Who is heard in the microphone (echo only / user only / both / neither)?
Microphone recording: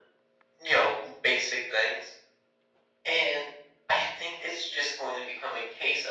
echo only